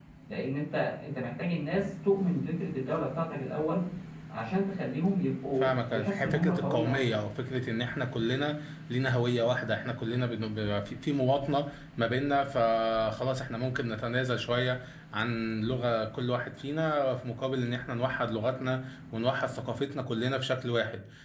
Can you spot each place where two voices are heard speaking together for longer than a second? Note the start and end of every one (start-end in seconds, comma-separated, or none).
5.6-7.0